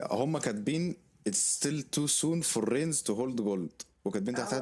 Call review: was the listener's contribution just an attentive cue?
Yes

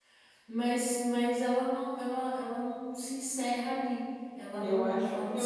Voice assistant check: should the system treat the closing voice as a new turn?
Yes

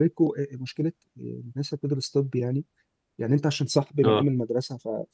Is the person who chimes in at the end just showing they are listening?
Yes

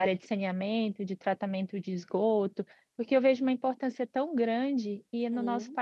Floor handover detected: No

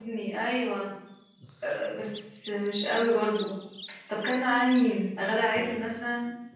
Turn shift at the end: Yes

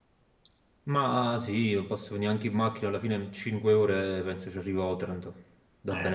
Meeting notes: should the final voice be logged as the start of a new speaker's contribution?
Yes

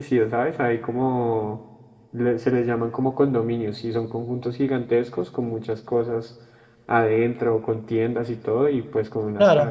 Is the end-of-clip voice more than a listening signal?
Yes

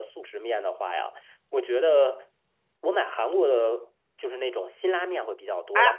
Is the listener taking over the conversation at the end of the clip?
No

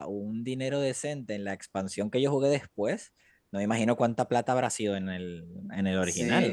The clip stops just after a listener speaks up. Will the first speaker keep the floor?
No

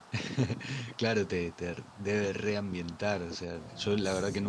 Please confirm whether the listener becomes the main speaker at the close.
No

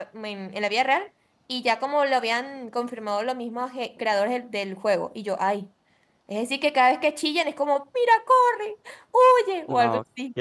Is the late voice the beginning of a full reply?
Yes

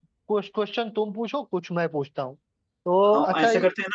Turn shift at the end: Yes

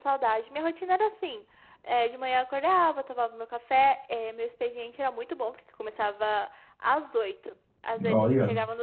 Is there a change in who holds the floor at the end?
No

